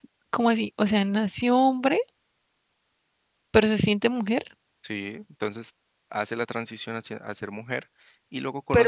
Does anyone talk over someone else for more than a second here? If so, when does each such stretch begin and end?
none

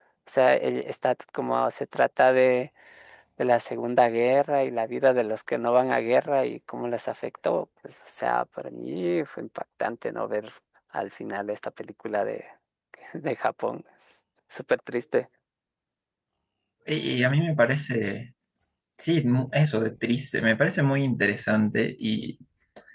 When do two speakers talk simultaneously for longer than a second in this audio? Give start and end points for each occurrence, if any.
none

